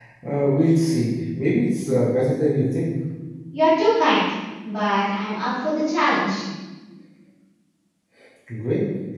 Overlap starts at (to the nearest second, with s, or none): none